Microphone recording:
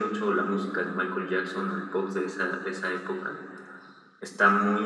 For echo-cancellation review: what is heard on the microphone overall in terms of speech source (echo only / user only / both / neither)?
echo only